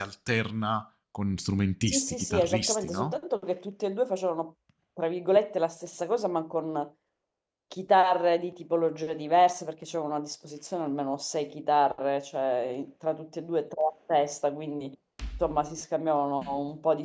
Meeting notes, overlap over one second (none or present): present